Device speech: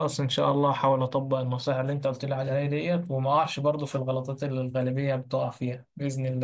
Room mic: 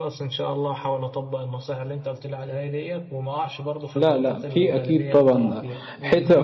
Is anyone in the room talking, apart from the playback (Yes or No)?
Yes